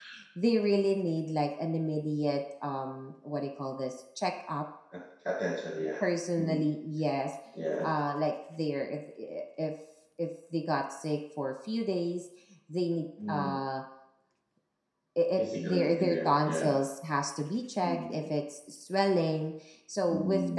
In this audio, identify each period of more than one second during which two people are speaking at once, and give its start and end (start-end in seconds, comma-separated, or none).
15.4-16.6